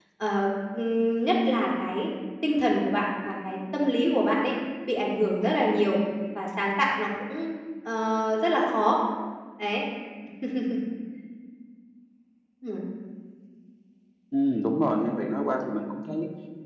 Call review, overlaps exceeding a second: none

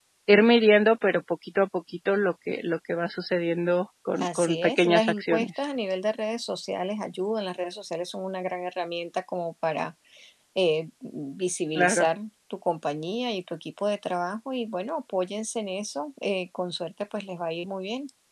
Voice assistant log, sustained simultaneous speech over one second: present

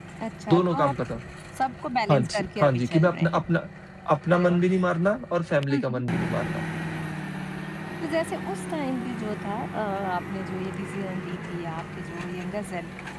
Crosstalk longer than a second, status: present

